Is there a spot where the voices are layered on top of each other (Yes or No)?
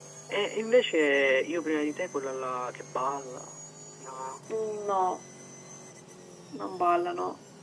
No